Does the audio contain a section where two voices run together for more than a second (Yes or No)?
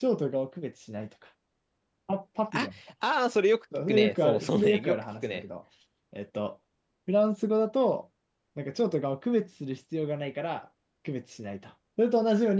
Yes